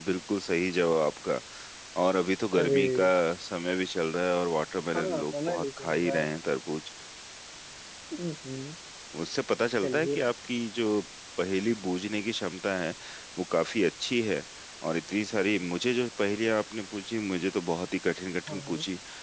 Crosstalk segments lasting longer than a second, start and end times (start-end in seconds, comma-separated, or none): 4.9-6.3